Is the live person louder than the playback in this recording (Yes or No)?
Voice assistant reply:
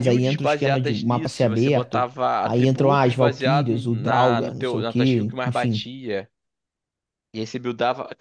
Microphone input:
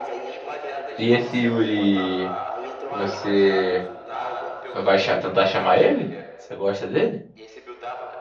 Yes